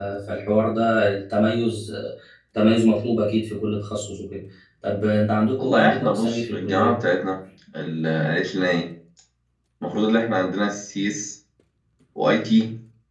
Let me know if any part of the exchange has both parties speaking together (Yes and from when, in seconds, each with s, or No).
Yes, from 5.6 s